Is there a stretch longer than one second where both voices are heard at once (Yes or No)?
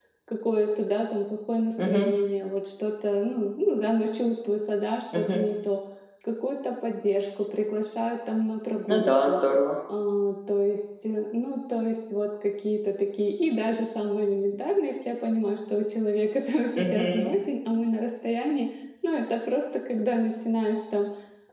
No